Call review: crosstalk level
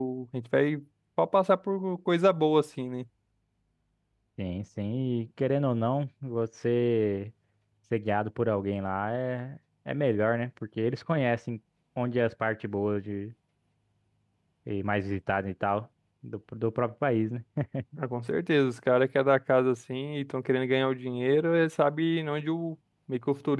none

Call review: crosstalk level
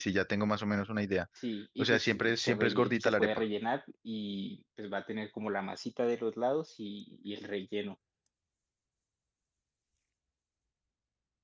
present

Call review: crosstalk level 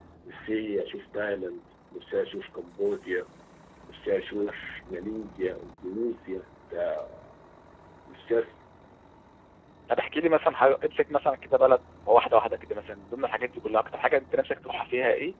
none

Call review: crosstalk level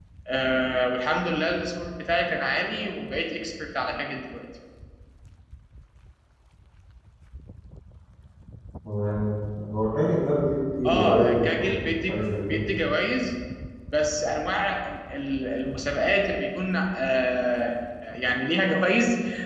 present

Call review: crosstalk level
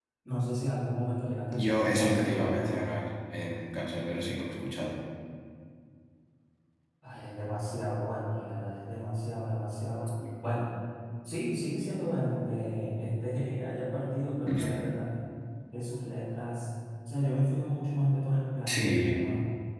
present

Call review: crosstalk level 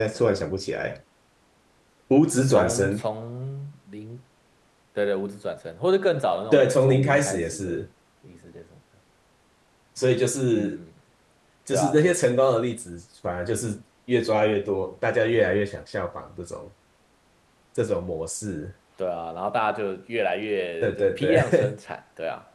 present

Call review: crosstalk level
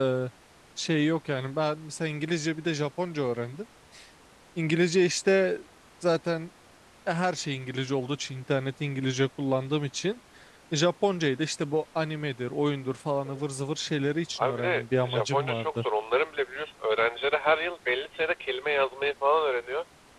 present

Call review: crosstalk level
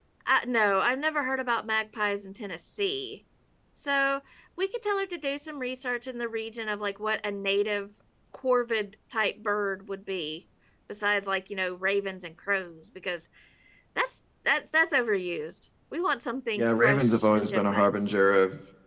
present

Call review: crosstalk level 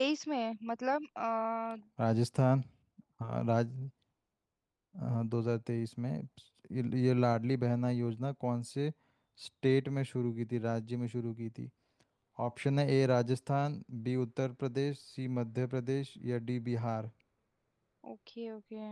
none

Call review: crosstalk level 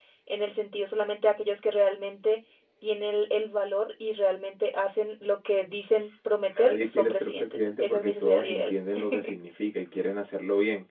present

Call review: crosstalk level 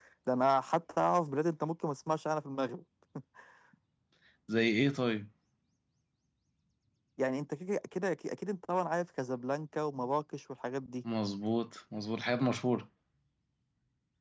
none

